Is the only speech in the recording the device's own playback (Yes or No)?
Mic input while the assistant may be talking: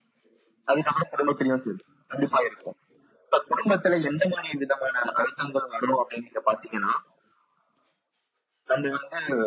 Yes